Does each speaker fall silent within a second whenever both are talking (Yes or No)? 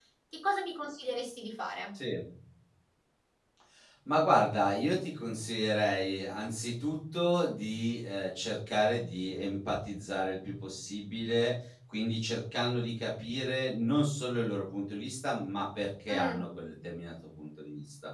Yes